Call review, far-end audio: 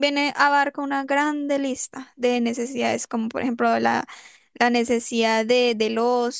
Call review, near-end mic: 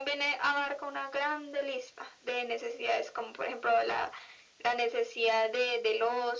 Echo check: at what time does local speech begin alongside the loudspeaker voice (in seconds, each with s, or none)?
none